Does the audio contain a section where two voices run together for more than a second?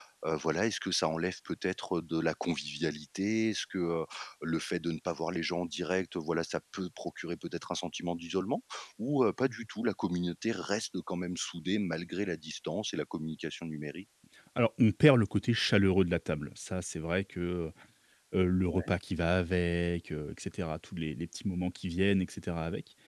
No

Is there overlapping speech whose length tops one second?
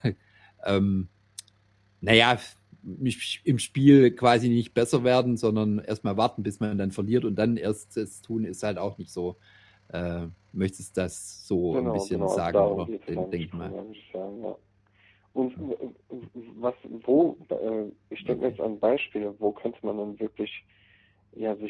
Yes, from 11.7 s

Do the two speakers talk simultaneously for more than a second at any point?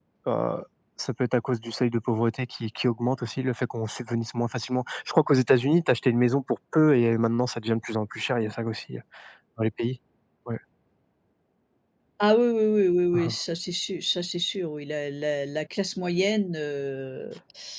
No

